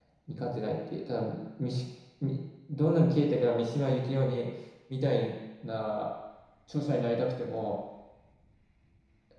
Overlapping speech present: No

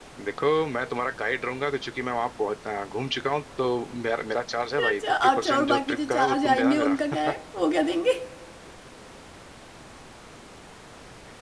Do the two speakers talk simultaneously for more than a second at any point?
Yes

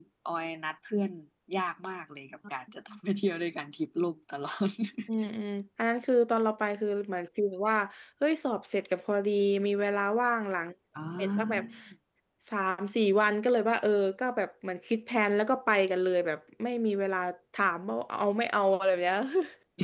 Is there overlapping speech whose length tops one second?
No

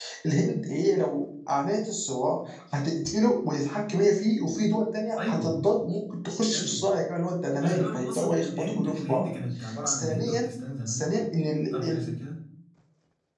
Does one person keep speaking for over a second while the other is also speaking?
Yes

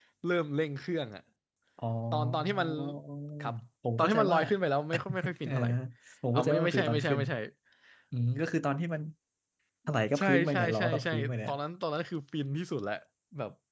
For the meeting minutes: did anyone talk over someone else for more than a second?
Yes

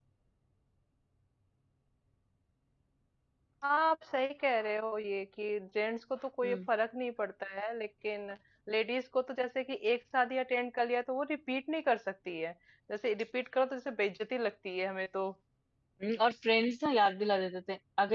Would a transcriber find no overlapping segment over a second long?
Yes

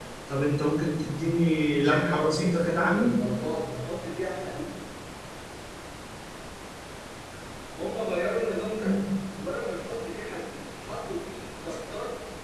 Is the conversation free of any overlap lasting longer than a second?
No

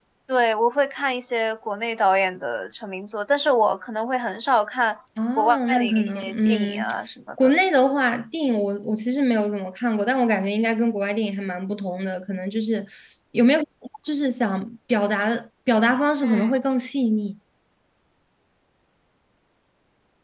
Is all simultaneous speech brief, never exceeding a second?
No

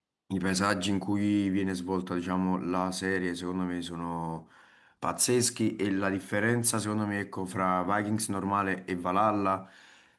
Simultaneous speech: No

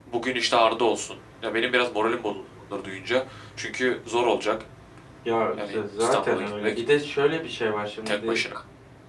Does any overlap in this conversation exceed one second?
Yes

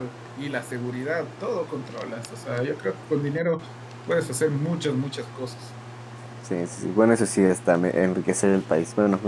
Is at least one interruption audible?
No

